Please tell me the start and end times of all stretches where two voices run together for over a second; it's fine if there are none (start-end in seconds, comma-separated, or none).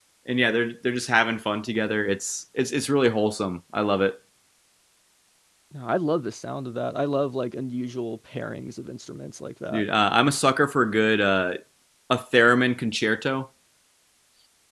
none